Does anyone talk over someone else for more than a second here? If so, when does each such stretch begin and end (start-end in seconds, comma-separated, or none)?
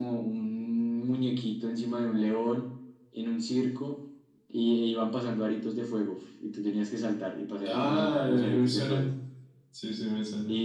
7.7-9.1